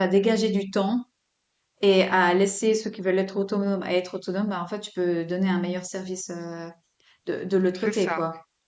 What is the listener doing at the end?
taking over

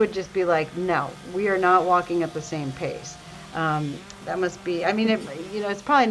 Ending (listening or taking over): listening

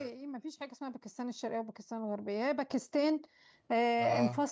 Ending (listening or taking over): listening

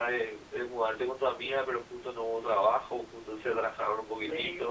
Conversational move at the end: taking over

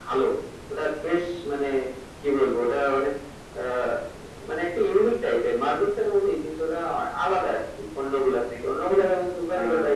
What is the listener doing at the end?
listening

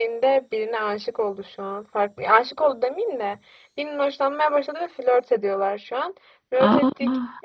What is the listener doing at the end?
listening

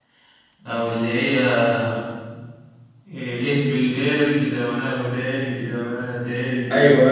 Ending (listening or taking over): taking over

